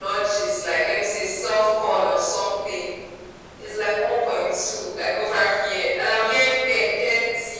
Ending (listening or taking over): taking over